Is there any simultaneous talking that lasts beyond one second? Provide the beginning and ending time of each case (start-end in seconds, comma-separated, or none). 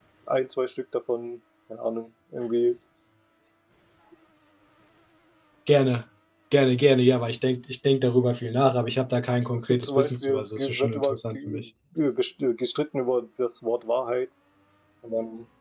9.5-11.7